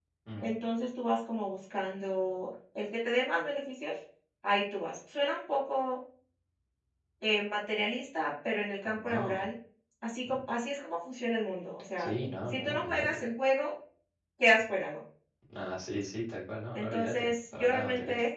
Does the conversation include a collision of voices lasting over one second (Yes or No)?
Yes